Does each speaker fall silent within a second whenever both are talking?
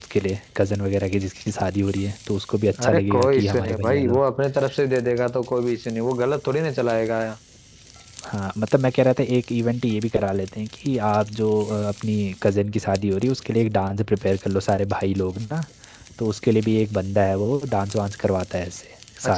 No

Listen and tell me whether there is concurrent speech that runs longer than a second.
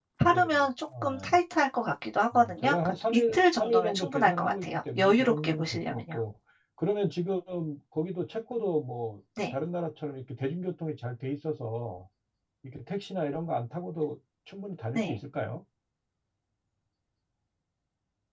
Yes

